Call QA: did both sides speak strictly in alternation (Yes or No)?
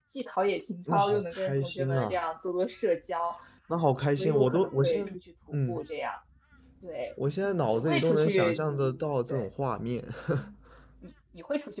No